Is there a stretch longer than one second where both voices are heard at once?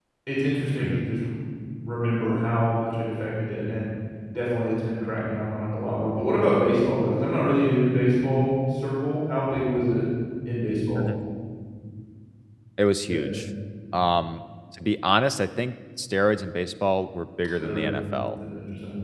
No

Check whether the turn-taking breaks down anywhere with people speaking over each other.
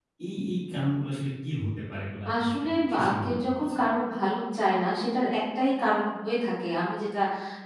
Yes, from 2.2 s

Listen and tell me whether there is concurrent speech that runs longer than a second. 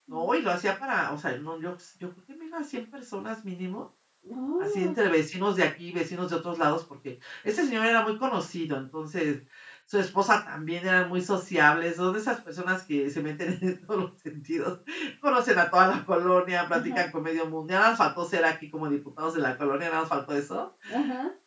No

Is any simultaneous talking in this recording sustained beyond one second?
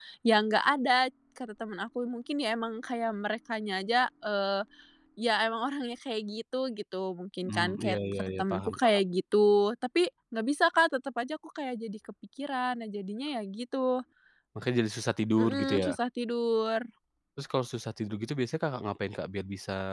Yes, from 7.5 s

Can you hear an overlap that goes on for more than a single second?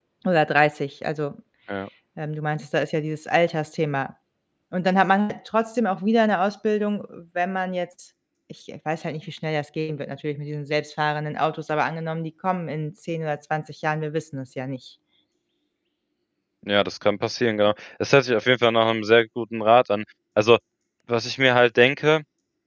No

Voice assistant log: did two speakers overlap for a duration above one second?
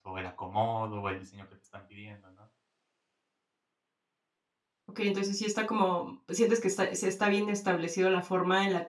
No

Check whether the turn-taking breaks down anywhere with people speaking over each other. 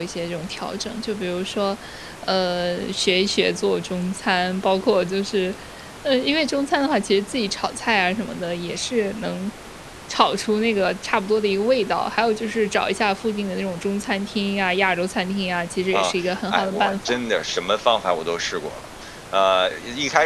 Yes, from 15.9 s

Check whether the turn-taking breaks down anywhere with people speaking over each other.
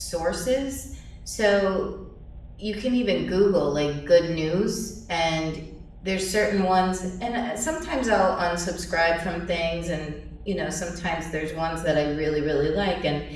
No

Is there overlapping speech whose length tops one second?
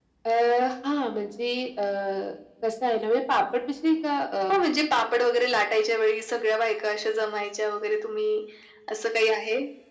No

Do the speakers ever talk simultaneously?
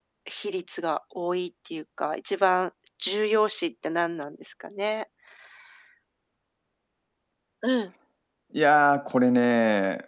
No

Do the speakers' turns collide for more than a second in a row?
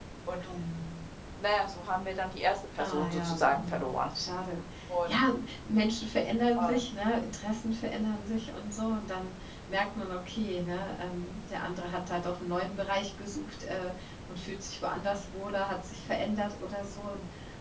Yes, from 2.8 s

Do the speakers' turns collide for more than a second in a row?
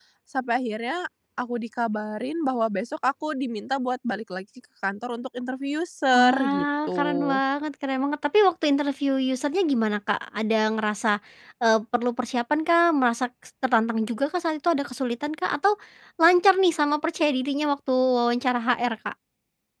Yes, from 6.1 s

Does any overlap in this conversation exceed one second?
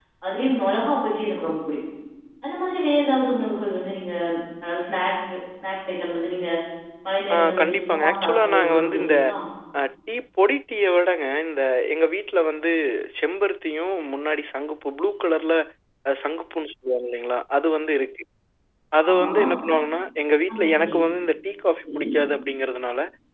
Yes, from 7.3 s

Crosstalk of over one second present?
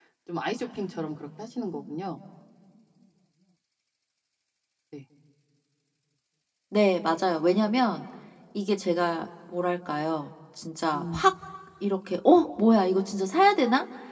No

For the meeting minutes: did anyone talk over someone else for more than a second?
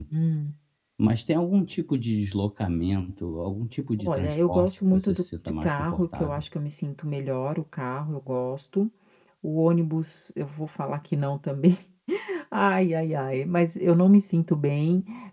Yes, from 4.0 s

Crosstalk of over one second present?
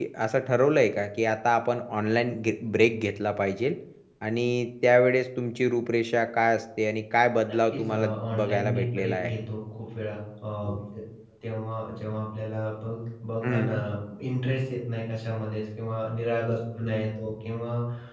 Yes, from 7.5 s

